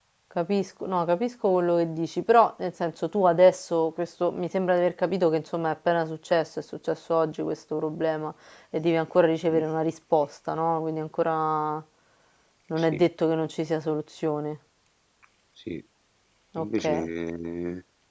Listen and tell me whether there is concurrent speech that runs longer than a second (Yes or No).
No